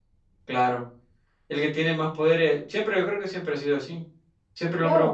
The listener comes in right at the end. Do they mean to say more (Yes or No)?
No